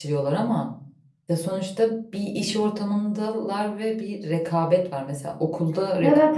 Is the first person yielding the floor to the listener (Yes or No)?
No